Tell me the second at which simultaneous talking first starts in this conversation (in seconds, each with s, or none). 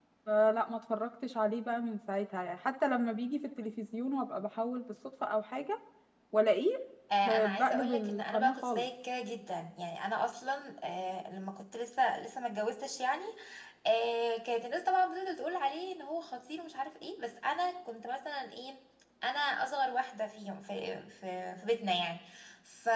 7.2 s